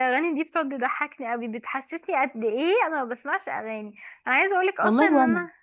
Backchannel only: Yes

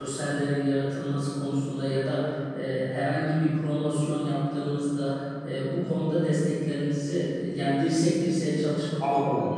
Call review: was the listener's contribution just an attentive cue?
No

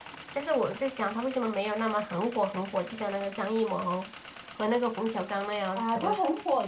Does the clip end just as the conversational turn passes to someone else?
Yes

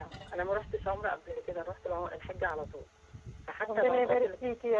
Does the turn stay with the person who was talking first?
No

